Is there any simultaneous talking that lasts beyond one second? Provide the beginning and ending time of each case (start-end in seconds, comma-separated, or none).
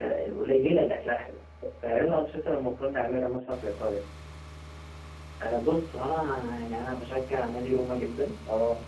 none